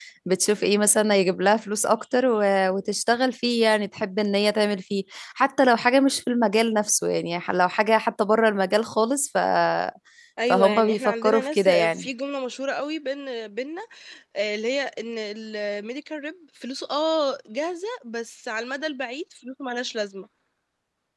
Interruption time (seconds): 11 s

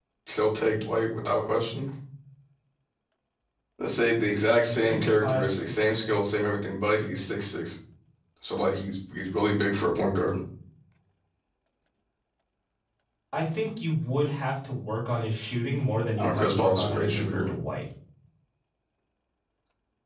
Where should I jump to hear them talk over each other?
5 s

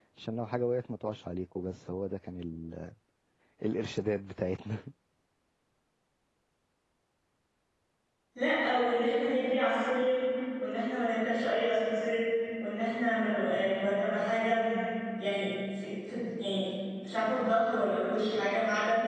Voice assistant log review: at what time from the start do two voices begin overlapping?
none

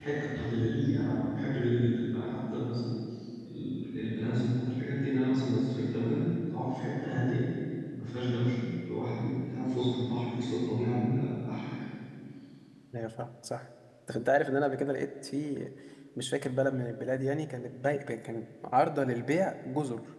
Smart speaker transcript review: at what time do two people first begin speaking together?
none

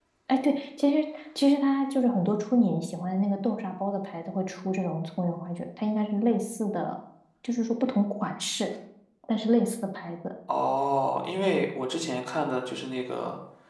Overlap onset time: none

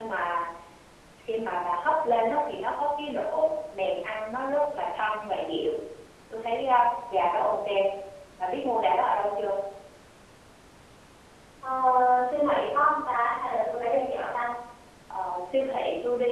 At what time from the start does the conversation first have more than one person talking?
none

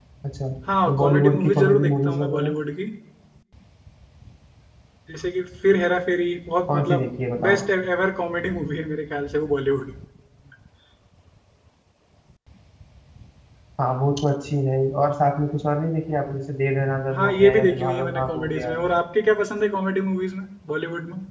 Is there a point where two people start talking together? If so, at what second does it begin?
1 s

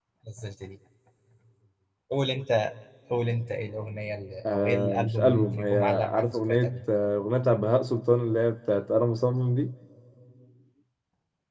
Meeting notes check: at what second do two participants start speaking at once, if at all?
4 s

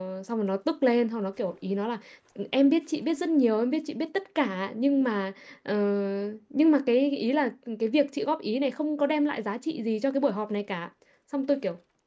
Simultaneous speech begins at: none

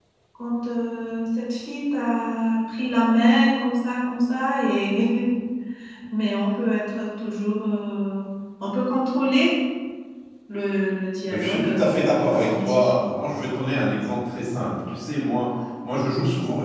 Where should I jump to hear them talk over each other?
11 s

